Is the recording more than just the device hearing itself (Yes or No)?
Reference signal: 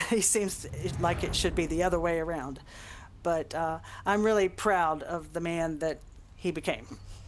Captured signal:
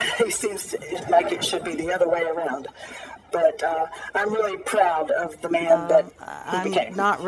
Yes